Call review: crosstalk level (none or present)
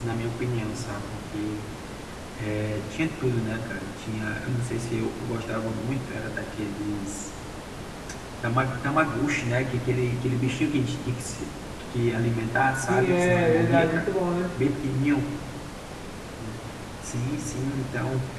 present